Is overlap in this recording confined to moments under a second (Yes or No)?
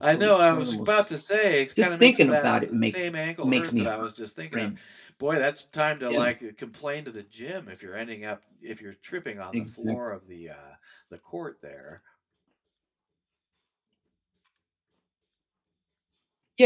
No